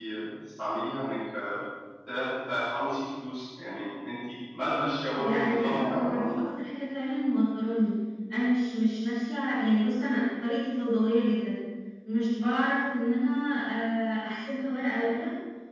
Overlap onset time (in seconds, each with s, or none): 5.2 s